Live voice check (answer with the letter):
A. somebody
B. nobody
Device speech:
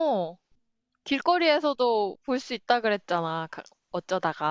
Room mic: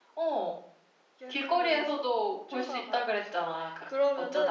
A